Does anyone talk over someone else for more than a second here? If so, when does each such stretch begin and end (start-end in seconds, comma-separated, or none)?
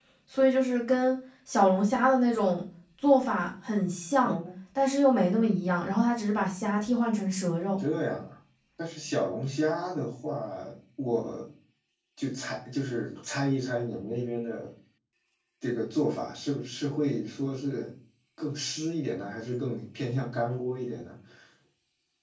none